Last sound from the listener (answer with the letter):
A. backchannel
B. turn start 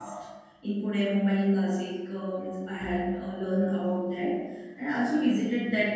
A